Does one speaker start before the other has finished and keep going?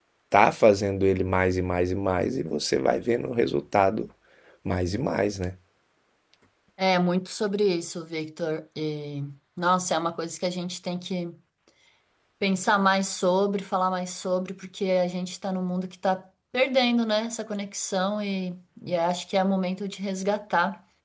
No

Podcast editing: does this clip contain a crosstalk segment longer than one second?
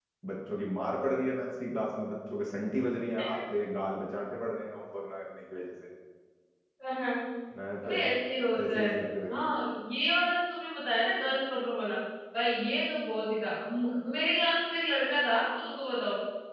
No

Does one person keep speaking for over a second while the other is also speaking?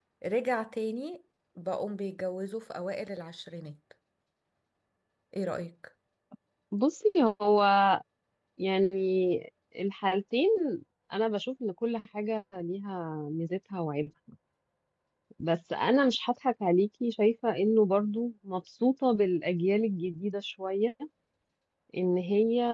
No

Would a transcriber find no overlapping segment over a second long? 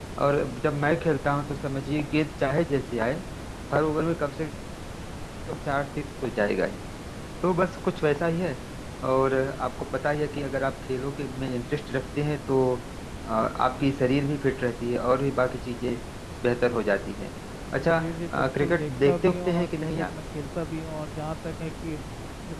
No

